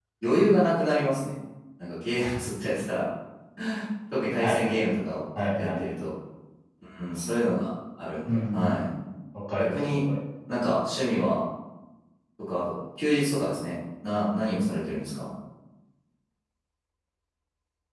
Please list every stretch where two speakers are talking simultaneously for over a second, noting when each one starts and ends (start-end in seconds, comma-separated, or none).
none